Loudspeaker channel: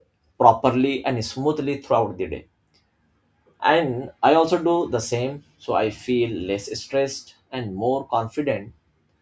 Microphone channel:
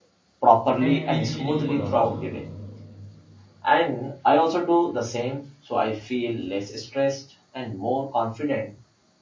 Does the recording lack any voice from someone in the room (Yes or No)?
No